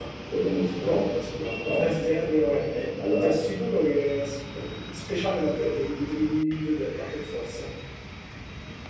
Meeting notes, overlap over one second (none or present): none